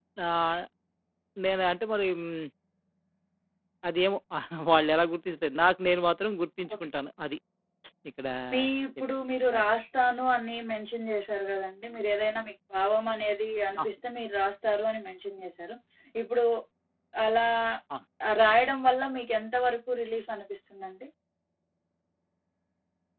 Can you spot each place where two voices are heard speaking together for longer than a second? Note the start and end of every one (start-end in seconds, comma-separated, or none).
none